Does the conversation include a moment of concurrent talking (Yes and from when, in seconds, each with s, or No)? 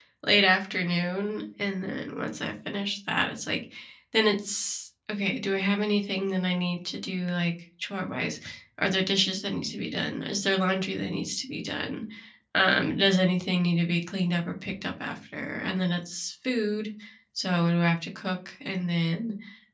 No